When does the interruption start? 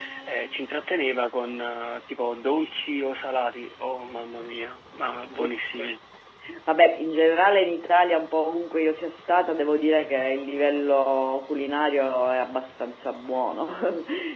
none

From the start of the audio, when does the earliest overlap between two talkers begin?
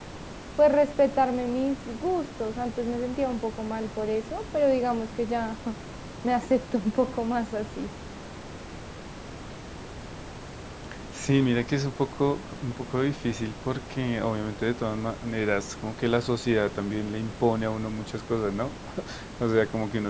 none

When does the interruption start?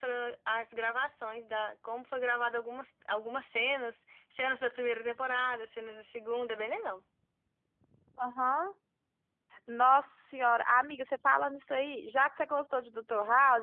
none

